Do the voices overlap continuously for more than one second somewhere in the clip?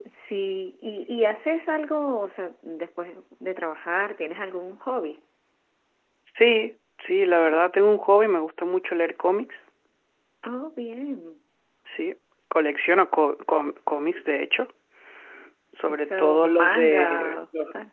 Yes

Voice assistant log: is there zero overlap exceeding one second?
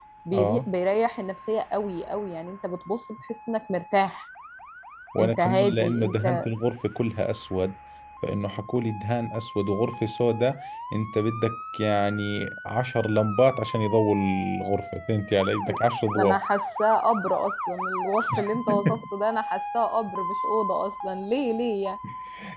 No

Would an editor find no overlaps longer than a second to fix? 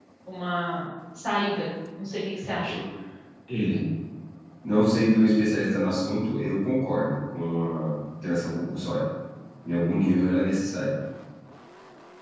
Yes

